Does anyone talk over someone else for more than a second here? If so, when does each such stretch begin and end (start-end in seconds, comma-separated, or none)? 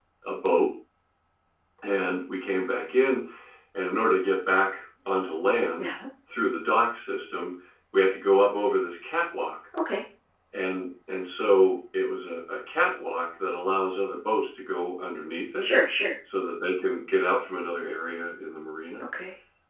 none